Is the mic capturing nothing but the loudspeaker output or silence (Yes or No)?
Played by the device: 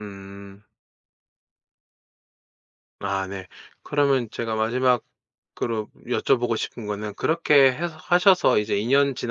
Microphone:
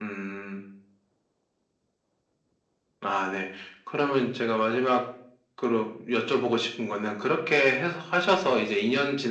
Yes